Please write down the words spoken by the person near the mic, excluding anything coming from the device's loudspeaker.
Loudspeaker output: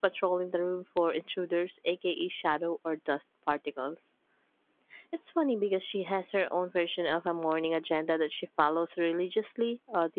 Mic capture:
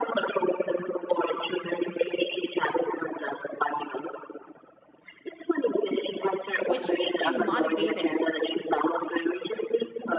which keeps him motivated.

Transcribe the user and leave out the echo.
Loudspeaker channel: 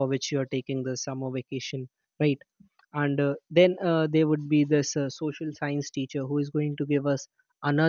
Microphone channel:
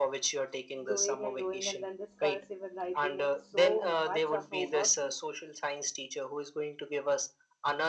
doing and doing, and then this cursive and writing and so much of homework

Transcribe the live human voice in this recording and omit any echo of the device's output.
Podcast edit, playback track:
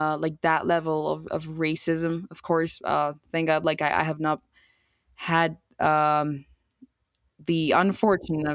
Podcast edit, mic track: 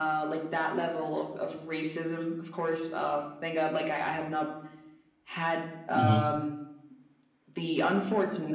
hmm

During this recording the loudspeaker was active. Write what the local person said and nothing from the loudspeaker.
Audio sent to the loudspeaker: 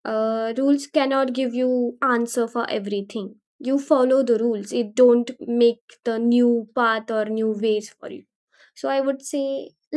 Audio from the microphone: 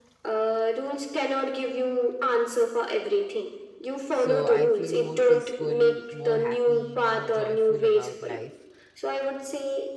So, I feel more peaceful, more happy, more joyful about life

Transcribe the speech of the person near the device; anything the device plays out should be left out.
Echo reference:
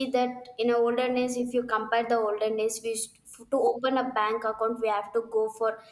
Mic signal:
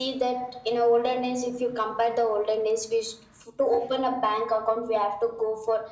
none

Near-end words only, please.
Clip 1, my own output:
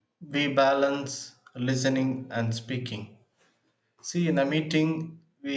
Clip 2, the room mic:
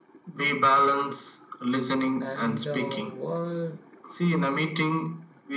and our world

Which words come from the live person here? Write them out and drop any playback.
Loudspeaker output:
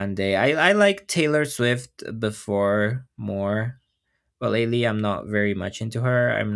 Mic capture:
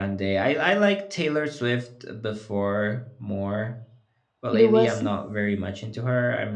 It was

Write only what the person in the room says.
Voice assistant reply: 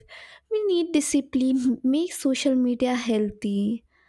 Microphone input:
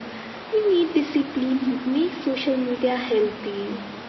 none

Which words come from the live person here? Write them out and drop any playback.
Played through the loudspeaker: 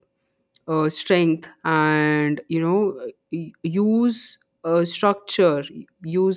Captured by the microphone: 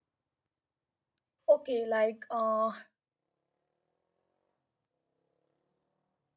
okay like uh

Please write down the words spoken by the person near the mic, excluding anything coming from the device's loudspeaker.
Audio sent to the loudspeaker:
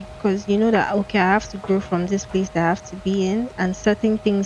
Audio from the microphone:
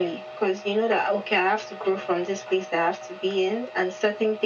none

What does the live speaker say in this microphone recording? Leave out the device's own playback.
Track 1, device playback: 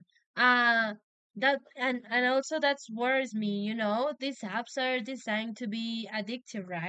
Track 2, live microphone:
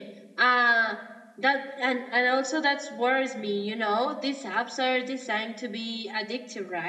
none

